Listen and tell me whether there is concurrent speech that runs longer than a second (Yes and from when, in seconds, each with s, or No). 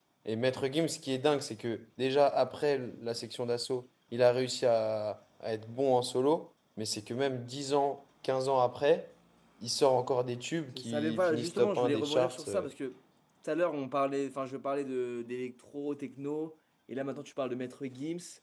Yes, from 10.8 s